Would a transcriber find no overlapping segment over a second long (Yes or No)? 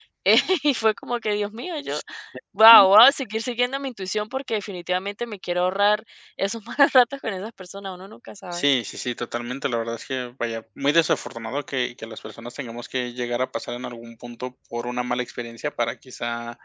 Yes